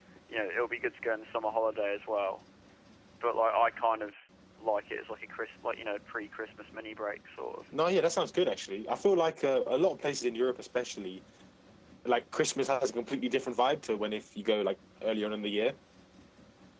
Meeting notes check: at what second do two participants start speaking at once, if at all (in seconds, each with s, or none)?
none